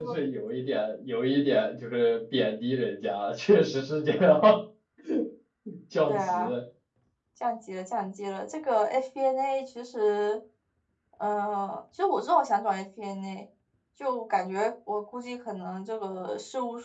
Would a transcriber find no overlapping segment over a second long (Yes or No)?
Yes